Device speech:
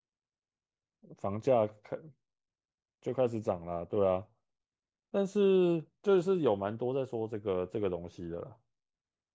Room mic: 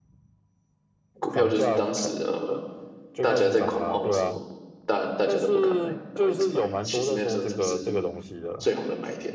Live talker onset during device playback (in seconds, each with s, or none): 1.2 s